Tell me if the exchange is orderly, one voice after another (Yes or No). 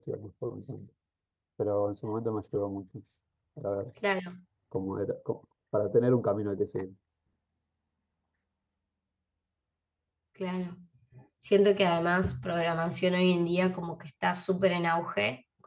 Yes